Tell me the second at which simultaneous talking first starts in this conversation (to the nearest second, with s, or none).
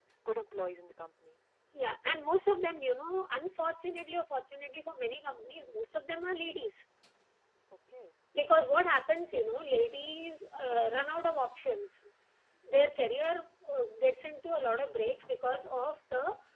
none